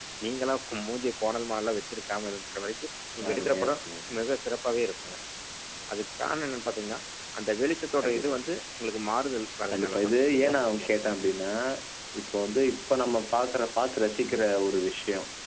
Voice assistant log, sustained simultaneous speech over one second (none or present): present